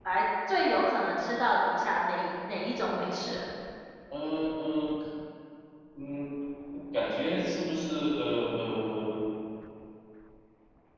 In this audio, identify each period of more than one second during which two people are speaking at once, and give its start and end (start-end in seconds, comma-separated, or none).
none